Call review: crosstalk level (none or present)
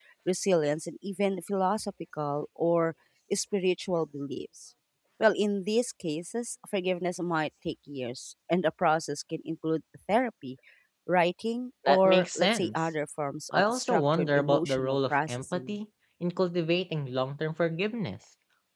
present